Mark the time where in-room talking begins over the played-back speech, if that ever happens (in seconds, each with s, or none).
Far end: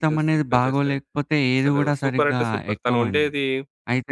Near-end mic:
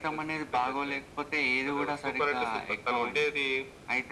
none